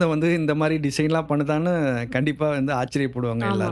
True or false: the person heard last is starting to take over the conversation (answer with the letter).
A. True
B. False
A